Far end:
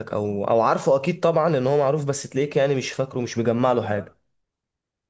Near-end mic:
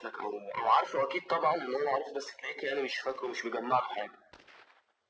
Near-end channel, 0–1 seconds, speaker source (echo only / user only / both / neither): echo only